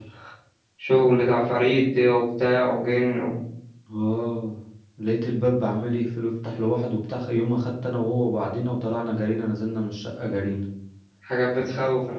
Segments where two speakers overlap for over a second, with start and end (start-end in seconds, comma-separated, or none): none